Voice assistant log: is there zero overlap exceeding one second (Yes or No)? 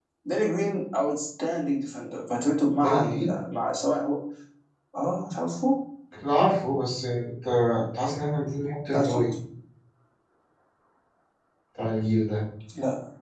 Yes